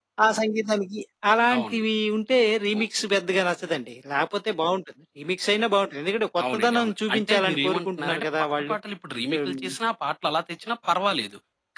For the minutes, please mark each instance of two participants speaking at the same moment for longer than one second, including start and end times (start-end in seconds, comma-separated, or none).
6.5-8.8